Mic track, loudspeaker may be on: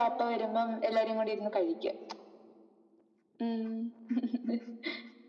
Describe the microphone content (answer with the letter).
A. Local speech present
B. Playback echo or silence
B